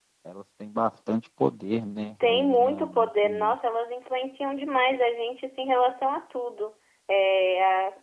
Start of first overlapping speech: 2.2 s

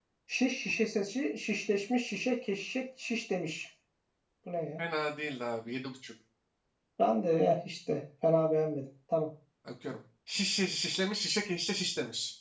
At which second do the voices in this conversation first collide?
none

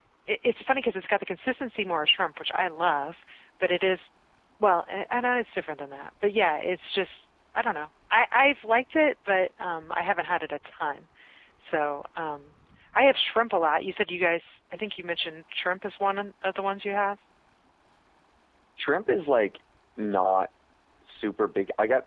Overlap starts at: none

